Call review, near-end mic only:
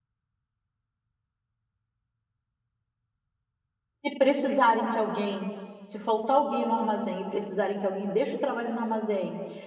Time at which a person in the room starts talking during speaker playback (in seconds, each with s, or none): 4.0 s